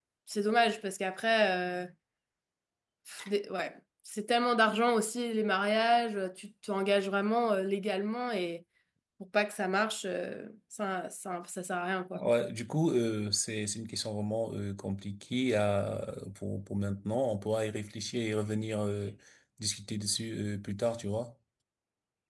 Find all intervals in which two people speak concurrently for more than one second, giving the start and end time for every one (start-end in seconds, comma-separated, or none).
none